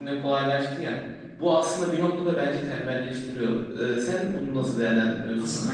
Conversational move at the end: taking over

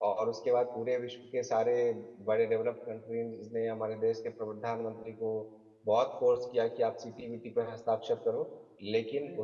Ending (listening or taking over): listening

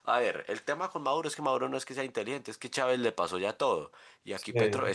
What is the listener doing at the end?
listening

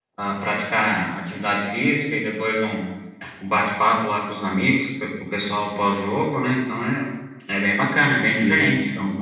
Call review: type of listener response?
taking over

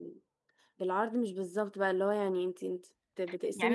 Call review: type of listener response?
taking over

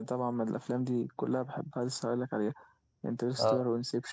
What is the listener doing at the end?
listening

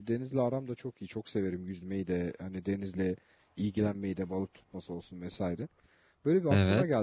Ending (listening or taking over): listening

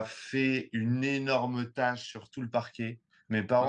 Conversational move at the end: listening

